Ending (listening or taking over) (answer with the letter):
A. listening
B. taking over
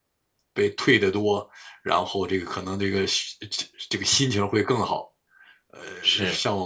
A